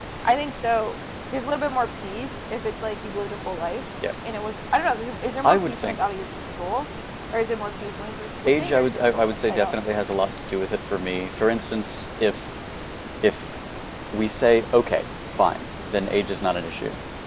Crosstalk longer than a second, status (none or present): present